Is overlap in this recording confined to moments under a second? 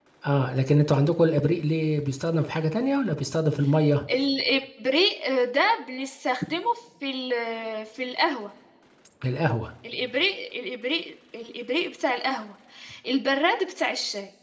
Yes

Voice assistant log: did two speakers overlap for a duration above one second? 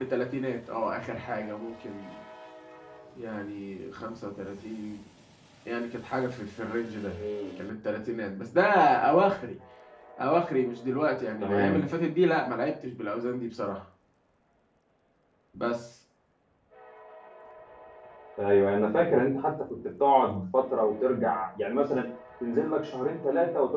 No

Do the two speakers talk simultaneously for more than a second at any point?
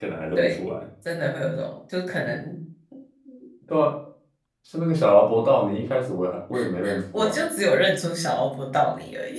No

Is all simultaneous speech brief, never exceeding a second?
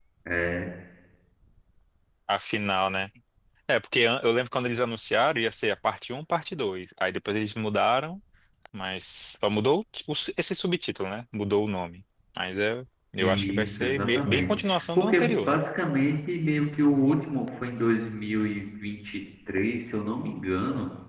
No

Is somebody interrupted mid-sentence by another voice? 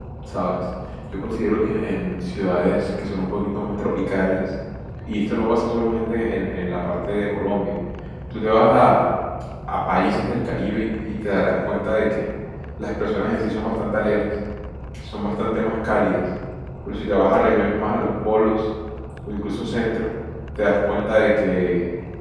No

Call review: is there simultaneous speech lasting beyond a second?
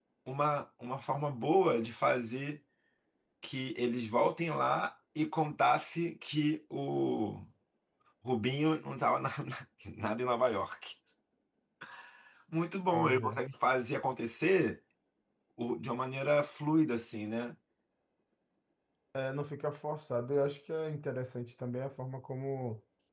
No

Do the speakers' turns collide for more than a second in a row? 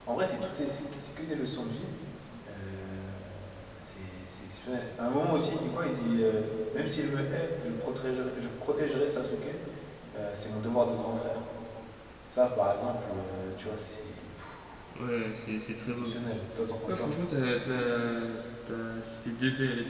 No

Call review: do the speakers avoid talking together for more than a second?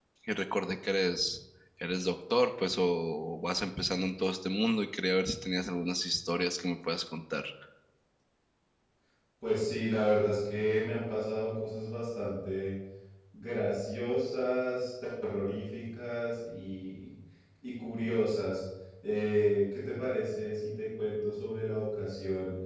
Yes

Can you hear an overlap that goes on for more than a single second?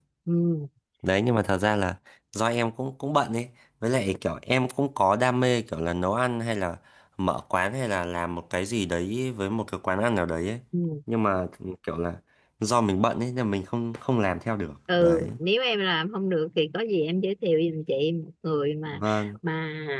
No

